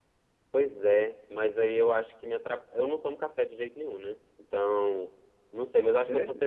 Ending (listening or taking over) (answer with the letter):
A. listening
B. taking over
A